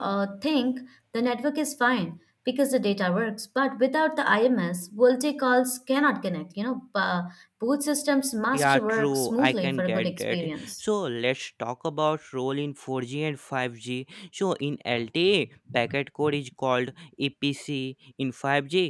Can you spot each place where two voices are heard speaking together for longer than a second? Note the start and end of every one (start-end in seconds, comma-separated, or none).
8.5-10.8